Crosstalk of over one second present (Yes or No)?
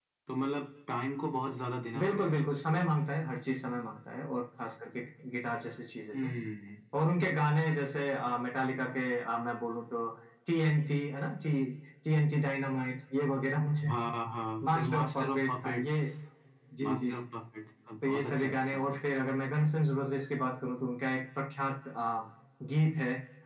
Yes